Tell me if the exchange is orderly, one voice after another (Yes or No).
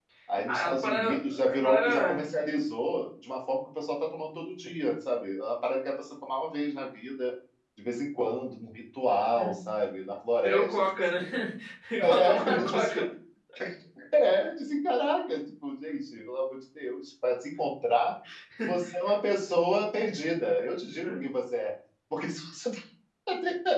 No